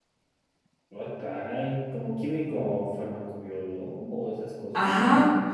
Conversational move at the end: taking over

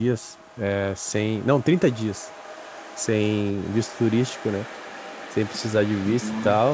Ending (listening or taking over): listening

